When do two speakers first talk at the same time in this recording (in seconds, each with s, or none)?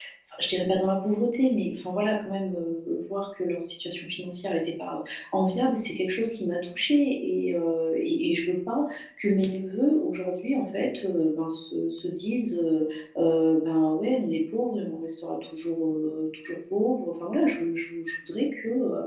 none